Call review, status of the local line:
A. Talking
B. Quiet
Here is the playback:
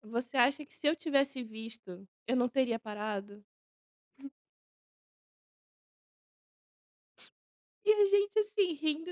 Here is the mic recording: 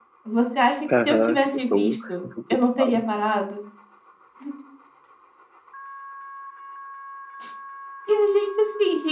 A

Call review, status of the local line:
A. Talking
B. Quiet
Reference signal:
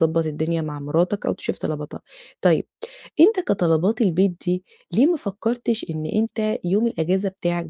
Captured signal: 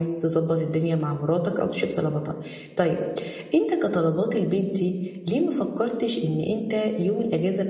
B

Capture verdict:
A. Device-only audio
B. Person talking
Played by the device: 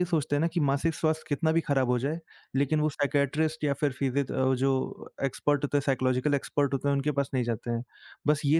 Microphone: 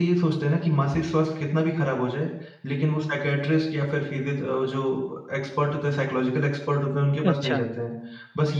B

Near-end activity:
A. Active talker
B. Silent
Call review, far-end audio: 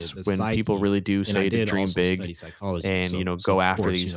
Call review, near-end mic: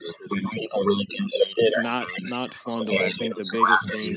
A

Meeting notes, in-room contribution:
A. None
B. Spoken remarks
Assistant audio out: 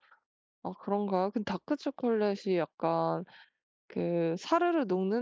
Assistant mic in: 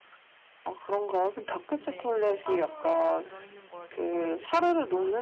B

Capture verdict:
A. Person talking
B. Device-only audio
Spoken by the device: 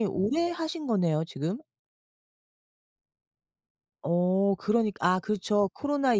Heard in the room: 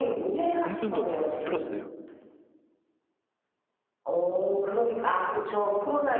A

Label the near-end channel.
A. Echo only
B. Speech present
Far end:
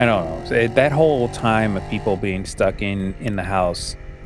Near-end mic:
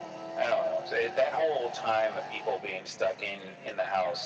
A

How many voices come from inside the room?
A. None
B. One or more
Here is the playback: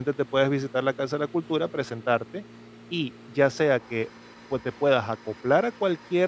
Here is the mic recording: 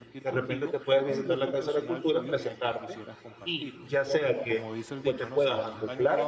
B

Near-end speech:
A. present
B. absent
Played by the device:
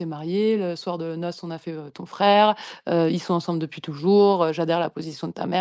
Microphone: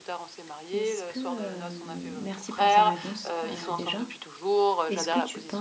A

